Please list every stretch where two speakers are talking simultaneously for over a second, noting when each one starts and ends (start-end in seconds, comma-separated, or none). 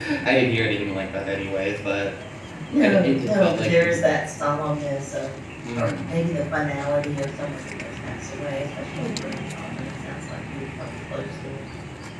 2.8-4.0